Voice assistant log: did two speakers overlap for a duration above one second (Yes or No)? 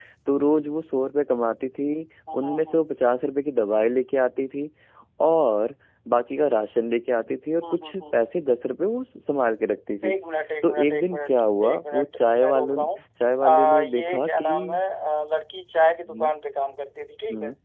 Yes